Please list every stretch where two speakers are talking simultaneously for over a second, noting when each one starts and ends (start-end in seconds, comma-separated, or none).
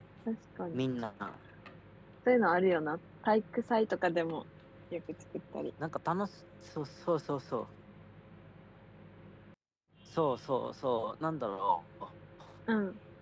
none